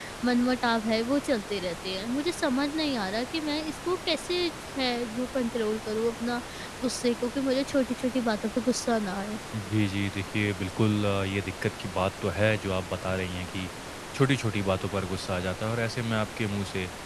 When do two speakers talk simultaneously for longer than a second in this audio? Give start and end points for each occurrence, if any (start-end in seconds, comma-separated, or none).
none